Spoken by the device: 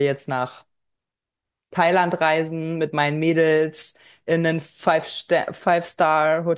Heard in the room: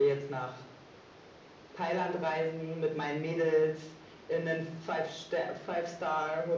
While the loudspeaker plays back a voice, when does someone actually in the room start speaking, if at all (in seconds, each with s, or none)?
none